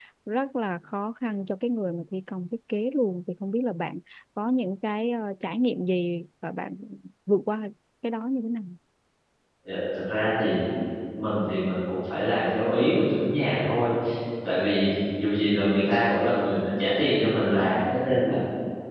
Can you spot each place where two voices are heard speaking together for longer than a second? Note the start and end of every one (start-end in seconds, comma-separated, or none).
none